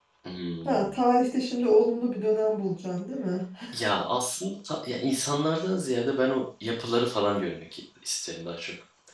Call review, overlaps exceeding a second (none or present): none